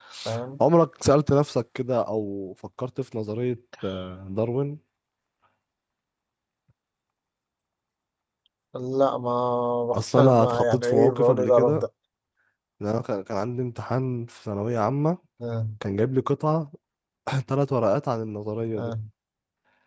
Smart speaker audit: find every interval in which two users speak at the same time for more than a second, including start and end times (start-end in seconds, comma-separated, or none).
9.9-11.8